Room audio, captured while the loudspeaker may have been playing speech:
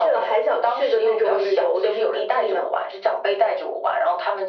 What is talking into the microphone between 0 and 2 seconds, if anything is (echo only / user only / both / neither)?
echo only